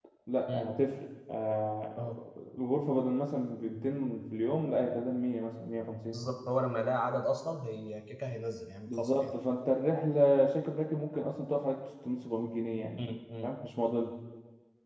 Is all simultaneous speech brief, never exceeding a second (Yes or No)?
Yes